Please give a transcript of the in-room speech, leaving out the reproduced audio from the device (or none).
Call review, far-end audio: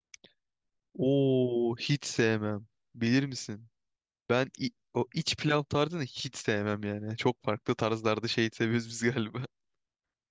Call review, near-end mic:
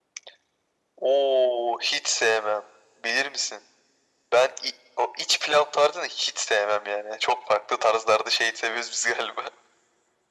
none